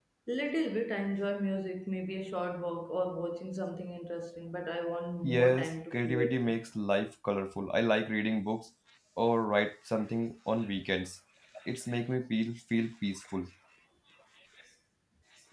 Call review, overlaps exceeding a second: present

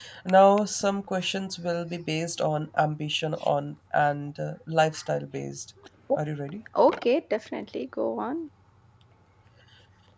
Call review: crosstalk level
none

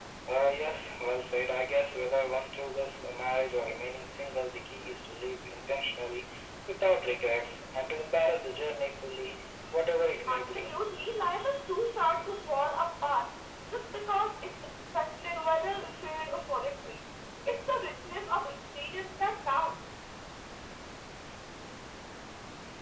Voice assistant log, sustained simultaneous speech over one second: none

